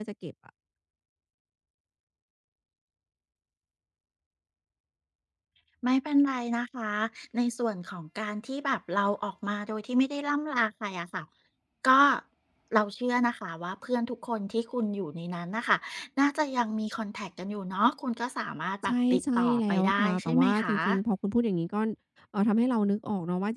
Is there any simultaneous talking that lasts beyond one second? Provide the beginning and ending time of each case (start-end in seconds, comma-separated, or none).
18.8-20.7